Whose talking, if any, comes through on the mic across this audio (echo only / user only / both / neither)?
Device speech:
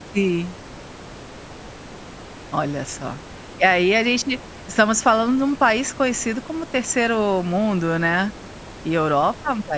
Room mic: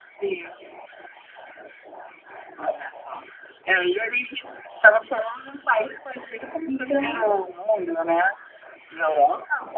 both